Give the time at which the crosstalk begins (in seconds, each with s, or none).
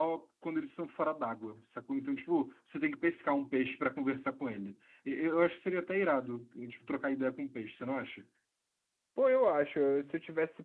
none